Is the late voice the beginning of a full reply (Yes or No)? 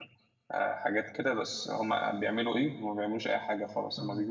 No